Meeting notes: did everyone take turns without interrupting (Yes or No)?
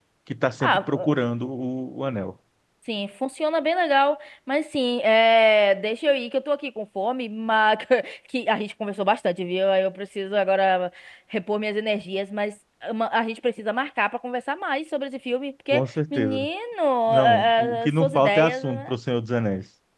No